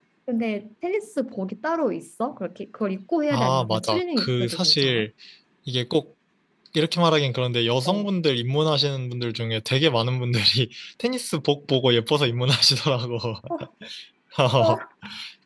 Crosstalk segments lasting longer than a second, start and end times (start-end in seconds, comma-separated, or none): 3.3-5.0